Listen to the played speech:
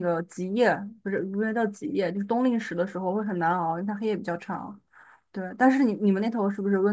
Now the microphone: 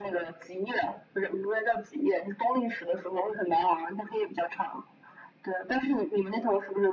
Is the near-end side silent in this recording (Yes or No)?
Yes